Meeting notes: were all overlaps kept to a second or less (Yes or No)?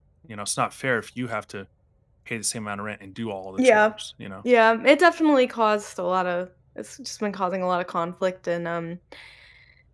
Yes